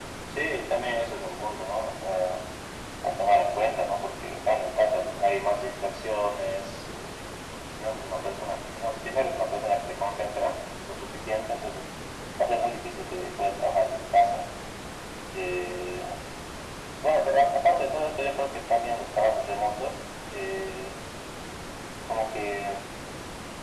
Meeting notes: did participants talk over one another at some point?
No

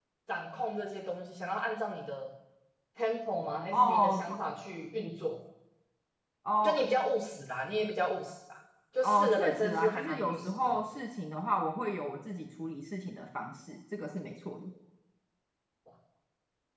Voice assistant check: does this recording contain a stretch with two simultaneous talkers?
Yes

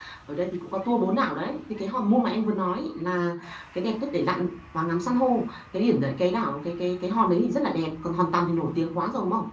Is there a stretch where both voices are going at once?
No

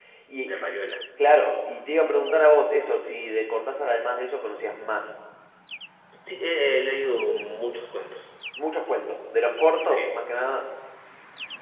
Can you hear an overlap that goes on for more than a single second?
No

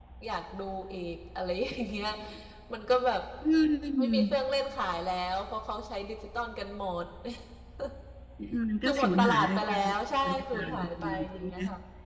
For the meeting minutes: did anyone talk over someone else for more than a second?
Yes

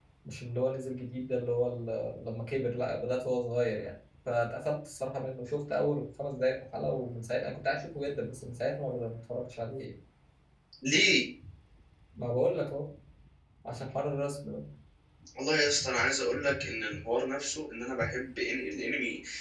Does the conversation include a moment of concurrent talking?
No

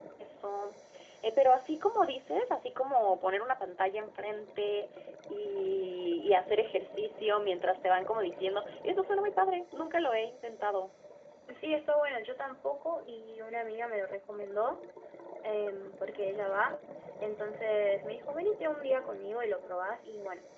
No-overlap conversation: Yes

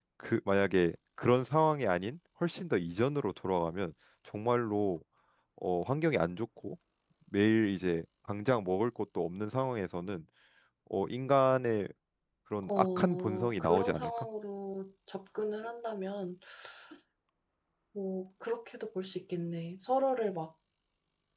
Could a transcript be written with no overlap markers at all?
No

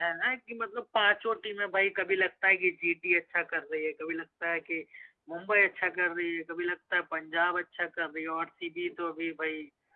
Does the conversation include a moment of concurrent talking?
No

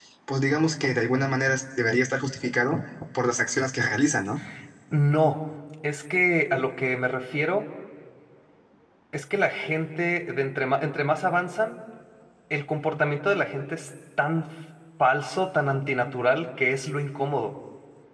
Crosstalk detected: No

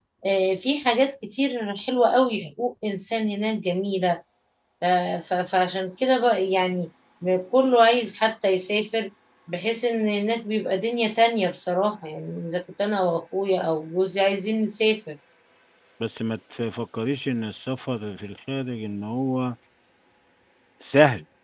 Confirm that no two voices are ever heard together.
Yes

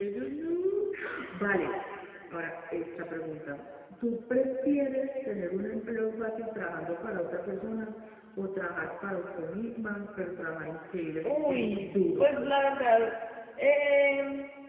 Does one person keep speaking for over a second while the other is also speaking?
Yes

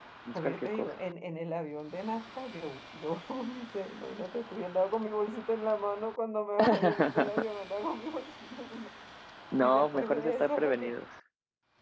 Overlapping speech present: Yes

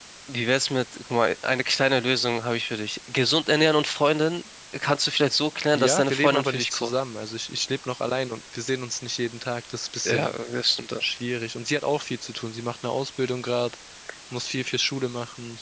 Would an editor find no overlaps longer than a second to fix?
No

